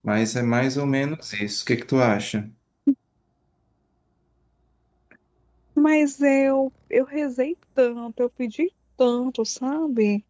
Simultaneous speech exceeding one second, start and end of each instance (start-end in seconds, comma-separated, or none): none